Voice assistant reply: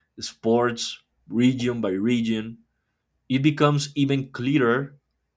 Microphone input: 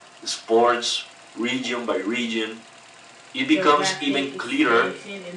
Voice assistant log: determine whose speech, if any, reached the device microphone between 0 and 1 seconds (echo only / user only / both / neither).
echo only